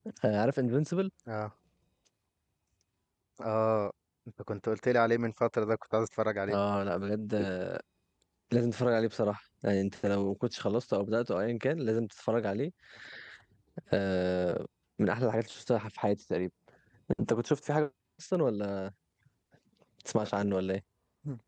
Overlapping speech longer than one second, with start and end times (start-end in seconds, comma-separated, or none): none